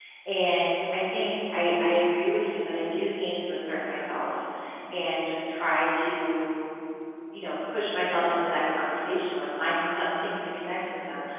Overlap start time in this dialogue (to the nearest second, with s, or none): none